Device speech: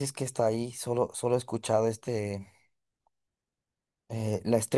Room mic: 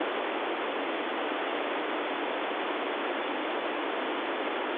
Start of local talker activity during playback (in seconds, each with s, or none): none